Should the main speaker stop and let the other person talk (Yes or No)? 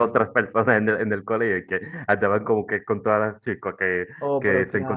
Yes